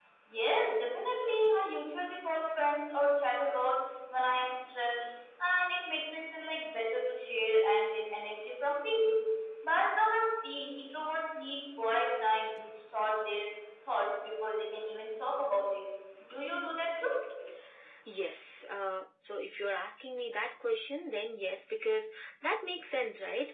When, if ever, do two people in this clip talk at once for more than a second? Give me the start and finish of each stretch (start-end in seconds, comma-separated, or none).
none